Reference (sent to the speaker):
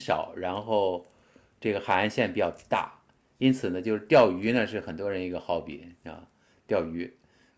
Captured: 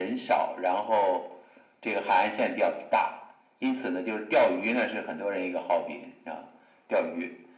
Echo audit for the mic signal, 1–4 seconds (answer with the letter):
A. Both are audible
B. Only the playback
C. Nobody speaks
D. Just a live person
B